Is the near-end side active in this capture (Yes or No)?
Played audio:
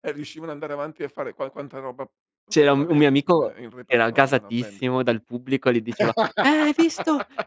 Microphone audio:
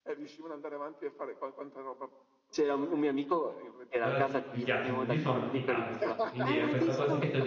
Yes